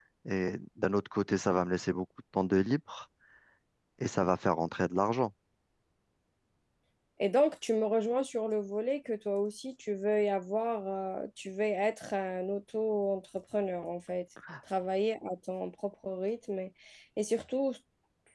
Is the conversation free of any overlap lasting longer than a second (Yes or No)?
Yes